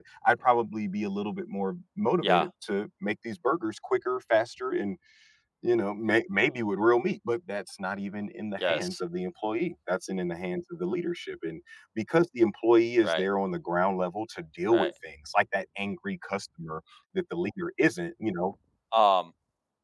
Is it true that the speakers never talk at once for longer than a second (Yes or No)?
Yes